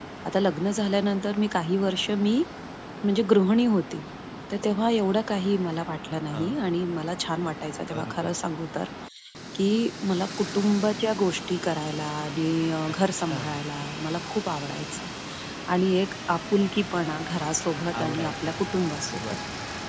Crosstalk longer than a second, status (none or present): present